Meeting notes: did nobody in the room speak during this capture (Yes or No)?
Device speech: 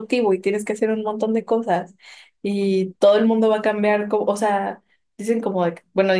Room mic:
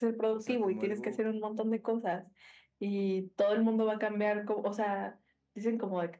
No